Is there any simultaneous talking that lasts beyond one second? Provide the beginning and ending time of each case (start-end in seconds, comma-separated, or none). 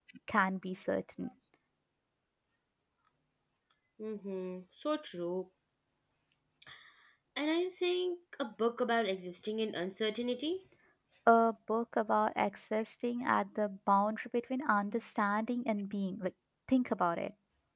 none